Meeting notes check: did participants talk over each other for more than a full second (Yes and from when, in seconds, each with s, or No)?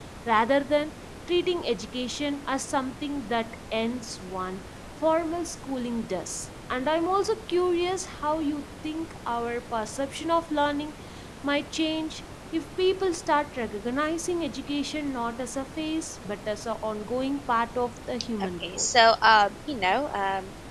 No